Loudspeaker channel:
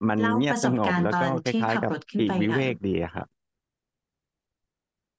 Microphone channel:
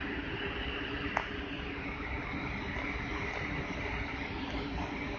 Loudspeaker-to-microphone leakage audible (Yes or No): No